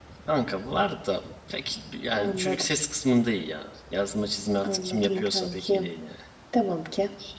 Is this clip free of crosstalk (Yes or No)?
No